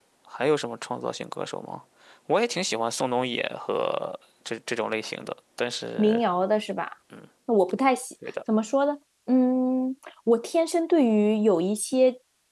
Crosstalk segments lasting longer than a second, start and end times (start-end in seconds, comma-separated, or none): none